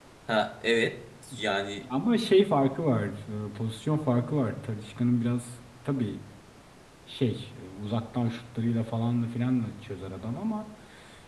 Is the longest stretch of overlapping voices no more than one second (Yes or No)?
Yes